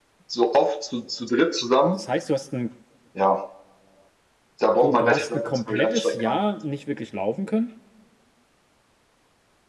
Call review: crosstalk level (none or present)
present